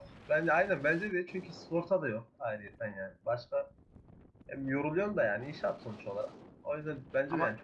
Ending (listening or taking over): listening